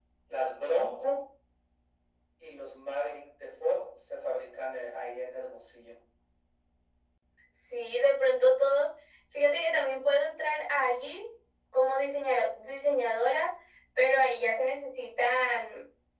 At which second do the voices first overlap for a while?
none

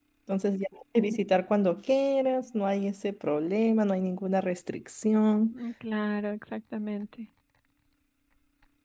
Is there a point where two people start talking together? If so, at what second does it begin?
none

